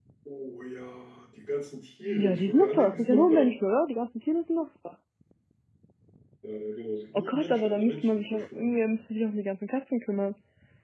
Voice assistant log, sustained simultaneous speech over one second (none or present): present